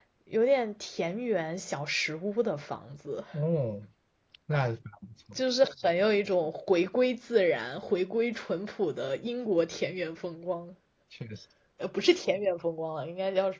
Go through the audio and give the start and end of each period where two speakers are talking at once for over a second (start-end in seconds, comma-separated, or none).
none